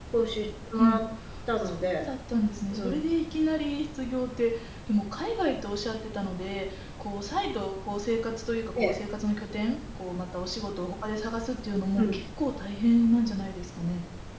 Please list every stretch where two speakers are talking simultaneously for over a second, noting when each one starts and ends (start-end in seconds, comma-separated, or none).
none